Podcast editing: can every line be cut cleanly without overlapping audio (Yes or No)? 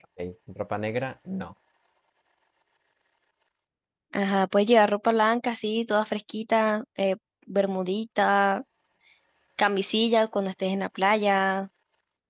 Yes